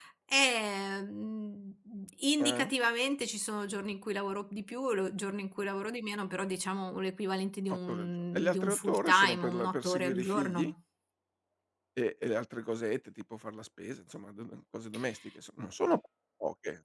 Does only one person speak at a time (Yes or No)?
No